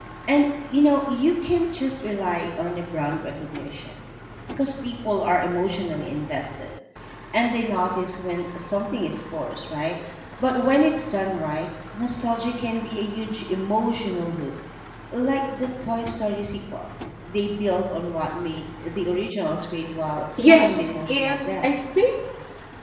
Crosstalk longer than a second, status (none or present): present